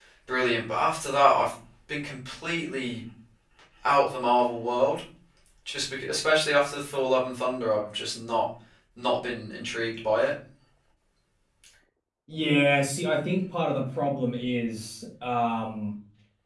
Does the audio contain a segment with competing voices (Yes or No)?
No